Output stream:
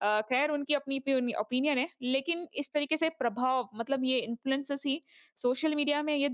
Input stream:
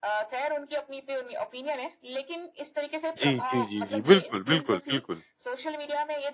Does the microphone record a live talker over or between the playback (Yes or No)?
Yes